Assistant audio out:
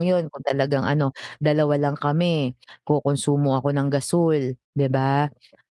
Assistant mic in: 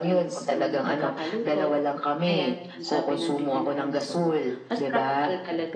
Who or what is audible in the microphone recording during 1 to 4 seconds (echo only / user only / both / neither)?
both